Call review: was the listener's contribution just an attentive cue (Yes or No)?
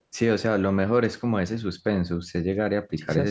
Yes